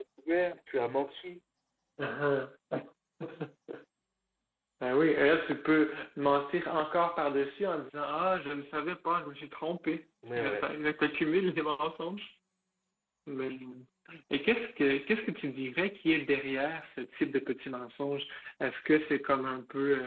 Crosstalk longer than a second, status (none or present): none